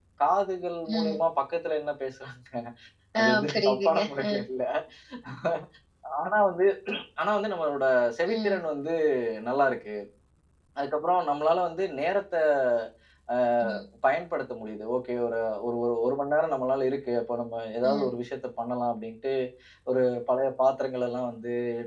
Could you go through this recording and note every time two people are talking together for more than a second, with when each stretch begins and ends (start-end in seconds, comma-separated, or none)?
3.2-4.4